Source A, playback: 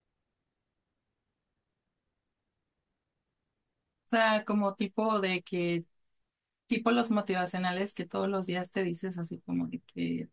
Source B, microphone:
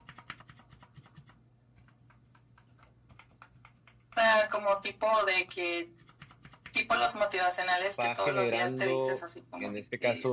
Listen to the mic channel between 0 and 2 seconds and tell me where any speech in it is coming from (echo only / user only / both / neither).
neither